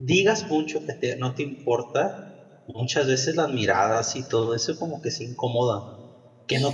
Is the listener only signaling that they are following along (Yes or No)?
Yes